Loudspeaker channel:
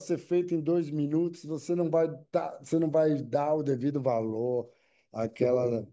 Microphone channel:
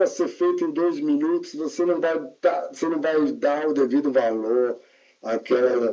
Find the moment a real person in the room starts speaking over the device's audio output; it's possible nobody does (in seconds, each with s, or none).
none